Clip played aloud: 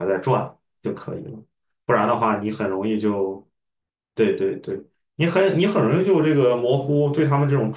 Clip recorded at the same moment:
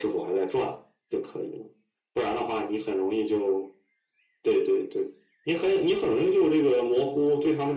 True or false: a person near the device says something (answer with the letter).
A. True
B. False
B